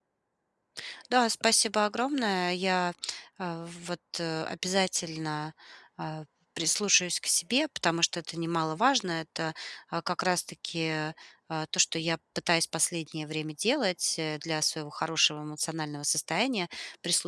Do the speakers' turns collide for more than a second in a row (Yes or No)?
No